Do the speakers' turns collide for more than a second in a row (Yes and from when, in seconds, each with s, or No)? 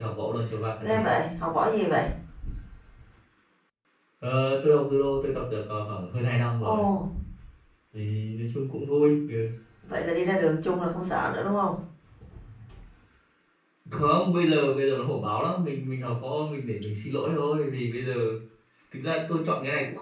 No